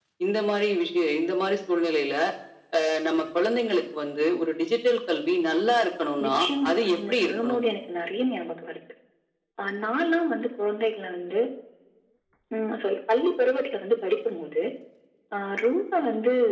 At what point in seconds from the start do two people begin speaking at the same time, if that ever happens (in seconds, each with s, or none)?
6.2 s